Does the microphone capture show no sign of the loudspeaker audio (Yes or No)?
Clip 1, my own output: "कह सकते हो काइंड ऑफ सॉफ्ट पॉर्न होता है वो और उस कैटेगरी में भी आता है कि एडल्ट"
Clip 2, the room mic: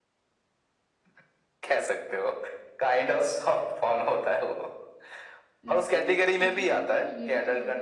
No